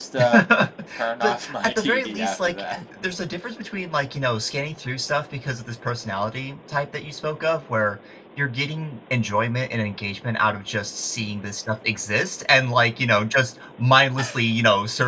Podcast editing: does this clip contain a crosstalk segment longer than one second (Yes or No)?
Yes